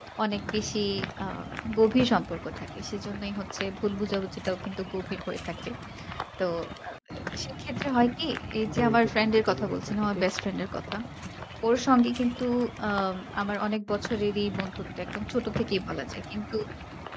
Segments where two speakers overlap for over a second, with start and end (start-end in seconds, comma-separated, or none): 8.7-10.2